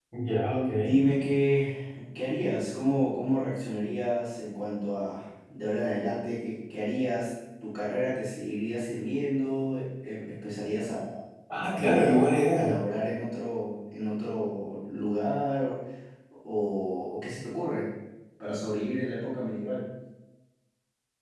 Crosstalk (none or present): present